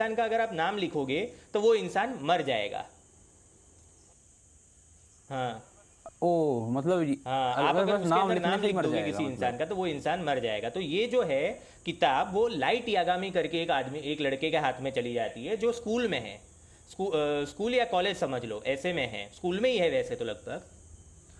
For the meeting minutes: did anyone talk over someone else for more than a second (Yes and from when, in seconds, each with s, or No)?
Yes, from 7.6 s